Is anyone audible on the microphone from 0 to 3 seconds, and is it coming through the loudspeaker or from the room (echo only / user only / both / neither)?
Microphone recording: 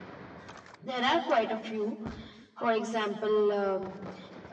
echo only